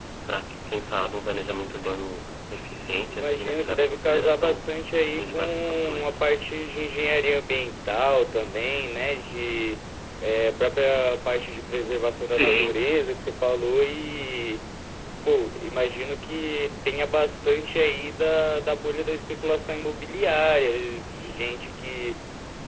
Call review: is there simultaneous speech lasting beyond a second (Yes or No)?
Yes